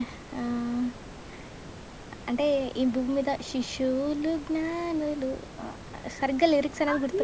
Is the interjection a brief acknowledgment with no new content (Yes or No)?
No